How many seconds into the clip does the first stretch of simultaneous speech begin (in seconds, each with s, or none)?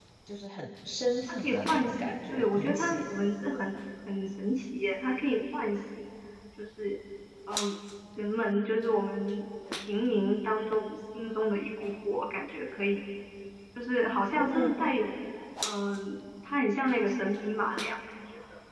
1.3 s